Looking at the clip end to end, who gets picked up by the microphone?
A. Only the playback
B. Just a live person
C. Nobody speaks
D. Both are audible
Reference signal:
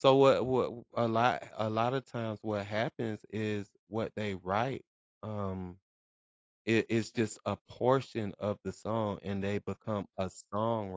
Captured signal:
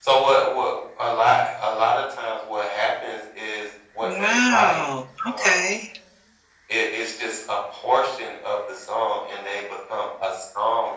D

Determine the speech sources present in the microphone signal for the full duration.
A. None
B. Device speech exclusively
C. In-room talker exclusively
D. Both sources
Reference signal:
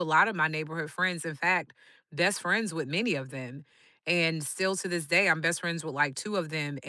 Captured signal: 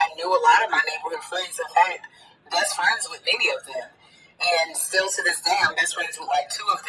B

